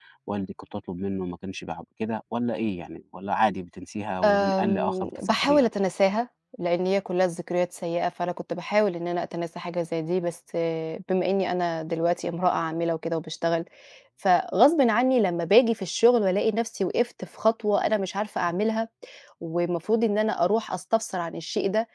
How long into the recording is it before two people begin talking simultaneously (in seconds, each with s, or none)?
4.2 s